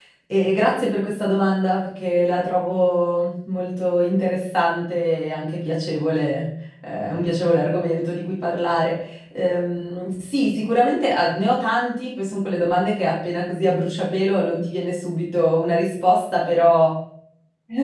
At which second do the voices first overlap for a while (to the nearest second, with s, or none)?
none